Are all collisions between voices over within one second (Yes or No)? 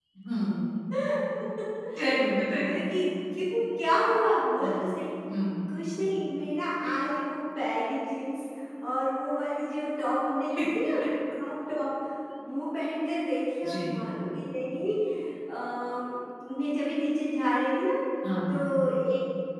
Yes